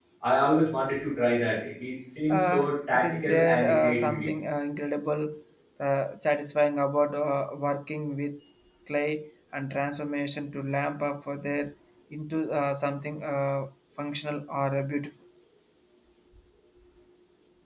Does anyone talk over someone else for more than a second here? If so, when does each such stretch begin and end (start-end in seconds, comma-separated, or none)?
2.3-4.3